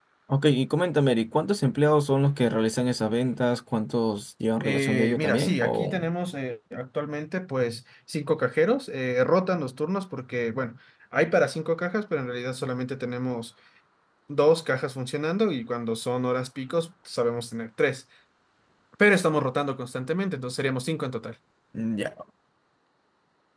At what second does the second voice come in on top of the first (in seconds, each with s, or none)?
4.6 s